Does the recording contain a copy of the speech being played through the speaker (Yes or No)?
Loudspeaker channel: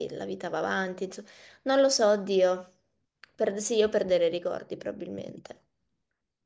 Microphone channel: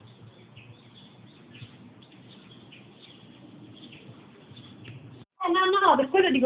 No